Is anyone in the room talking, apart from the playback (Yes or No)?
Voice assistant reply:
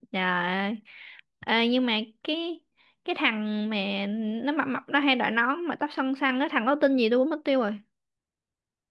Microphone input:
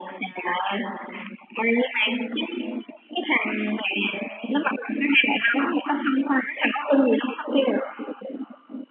No